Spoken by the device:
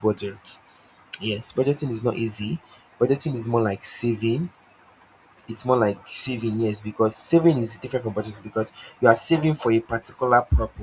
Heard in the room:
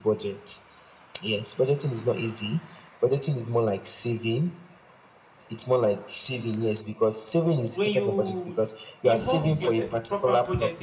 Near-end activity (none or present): present